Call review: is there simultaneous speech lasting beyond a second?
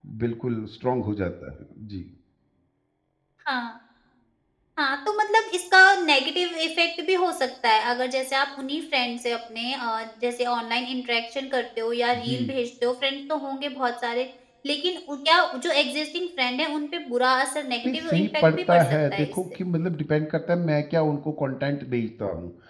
Yes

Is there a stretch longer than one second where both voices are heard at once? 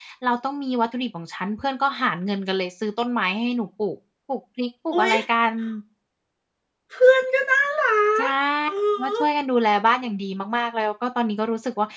No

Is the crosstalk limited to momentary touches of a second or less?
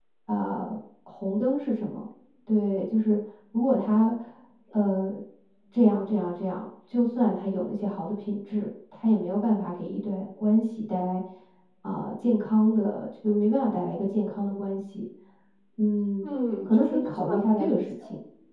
No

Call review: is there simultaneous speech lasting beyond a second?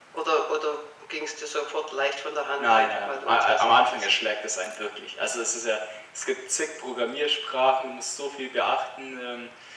Yes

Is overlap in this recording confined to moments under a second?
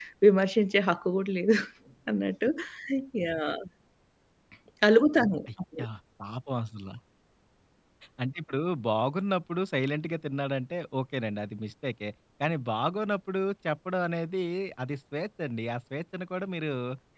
Yes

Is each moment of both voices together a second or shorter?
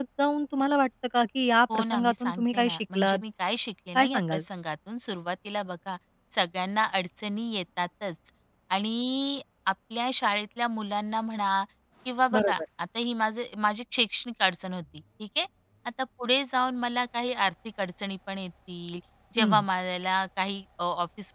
No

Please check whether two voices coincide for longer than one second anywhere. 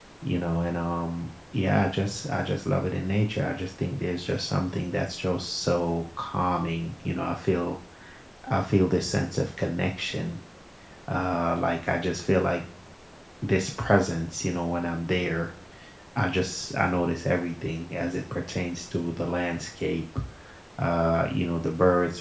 No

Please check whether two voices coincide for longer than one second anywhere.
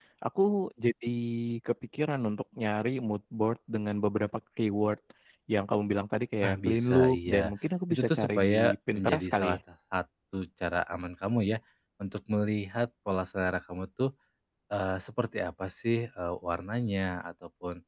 Yes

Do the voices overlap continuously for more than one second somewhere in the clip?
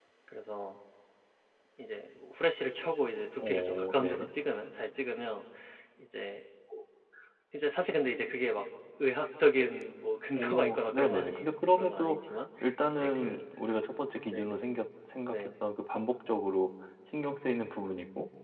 Yes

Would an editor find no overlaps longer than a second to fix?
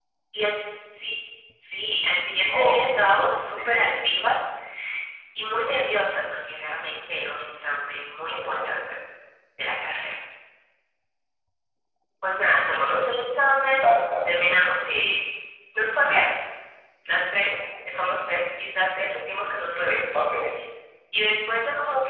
No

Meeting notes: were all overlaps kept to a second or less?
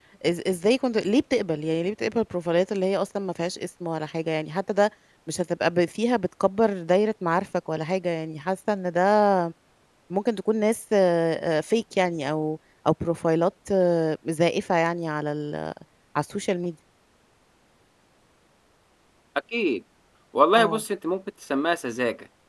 Yes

